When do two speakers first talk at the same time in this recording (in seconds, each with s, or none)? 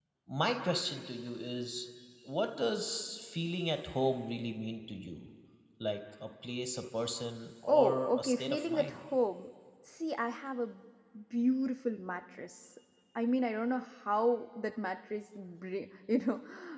7.7 s